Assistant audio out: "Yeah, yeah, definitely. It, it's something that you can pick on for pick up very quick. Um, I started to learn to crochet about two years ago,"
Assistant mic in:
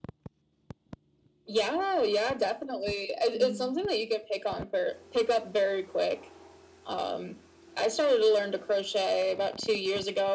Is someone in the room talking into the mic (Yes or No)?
Yes